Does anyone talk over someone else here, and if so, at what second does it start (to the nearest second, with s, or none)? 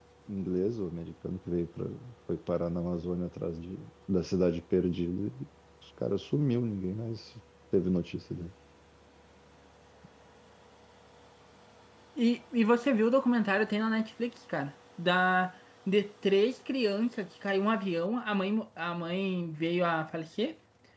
none